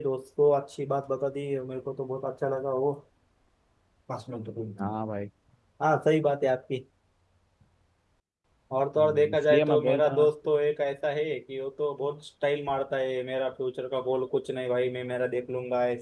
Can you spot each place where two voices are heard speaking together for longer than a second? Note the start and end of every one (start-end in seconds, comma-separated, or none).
9.0-10.3